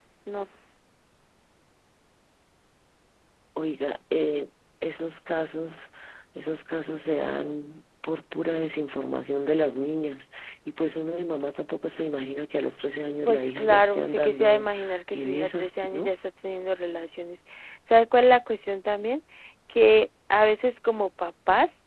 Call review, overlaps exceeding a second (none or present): present